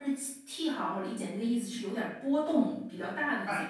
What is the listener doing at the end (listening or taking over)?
taking over